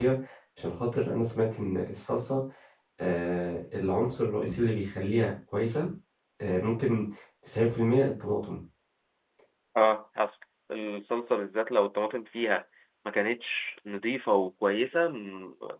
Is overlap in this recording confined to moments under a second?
Yes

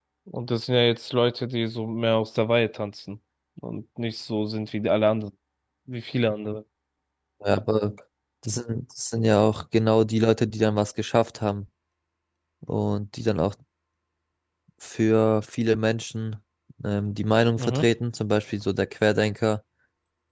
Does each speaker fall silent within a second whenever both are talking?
Yes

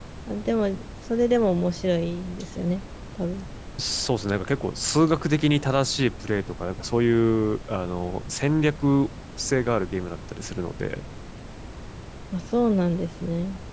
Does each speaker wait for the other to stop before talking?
Yes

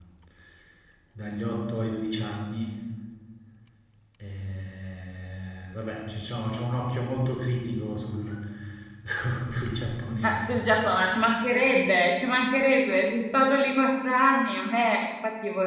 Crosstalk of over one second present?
No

